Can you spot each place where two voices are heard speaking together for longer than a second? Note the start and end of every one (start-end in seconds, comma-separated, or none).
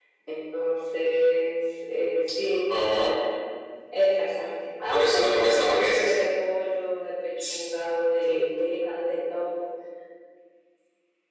4.9-6.1